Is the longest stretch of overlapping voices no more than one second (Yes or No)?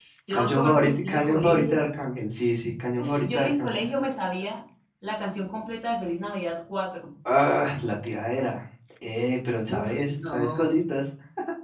No